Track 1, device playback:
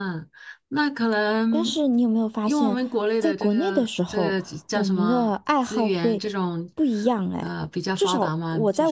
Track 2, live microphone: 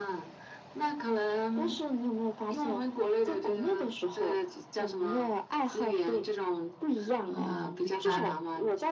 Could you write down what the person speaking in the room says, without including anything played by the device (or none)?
哦，我明白了，